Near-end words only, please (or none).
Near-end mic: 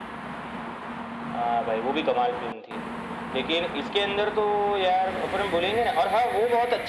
none